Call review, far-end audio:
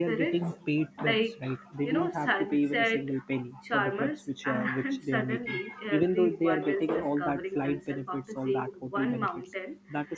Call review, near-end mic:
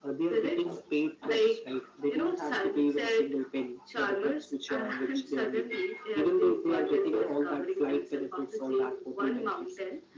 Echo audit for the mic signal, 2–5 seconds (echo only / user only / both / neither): echo only